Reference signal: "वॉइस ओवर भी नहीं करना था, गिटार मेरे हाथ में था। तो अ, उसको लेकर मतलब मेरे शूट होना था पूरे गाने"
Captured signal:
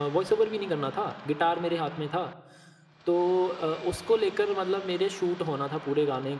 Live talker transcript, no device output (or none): none